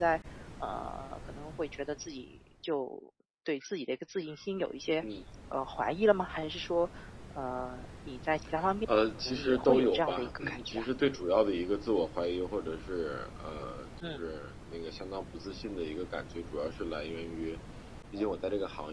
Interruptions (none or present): present